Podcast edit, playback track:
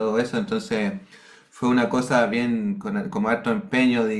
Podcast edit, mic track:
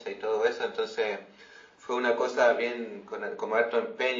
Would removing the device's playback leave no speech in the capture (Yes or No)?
Yes